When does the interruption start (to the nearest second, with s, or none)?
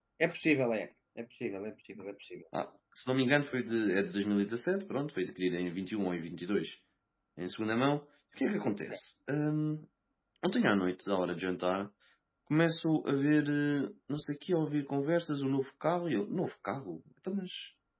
none